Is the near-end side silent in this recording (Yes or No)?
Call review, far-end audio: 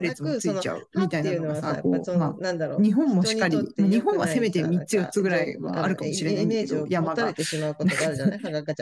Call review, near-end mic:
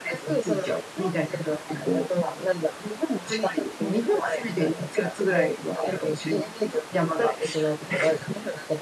Yes